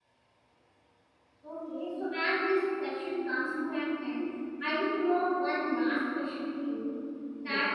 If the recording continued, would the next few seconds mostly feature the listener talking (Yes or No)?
No